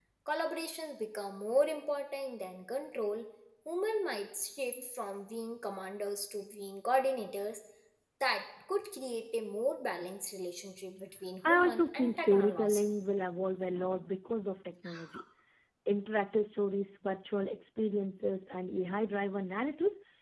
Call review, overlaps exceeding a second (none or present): present